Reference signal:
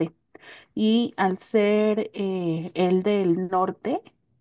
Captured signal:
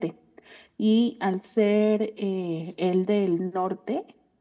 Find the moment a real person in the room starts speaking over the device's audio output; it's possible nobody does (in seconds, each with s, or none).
none